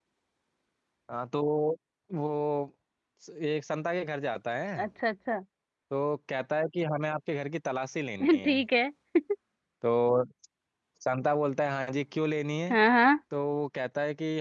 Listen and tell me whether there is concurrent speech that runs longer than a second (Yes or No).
No